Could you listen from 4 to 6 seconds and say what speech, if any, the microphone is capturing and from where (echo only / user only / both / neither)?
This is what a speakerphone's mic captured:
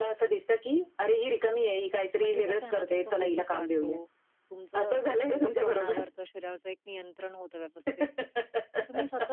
both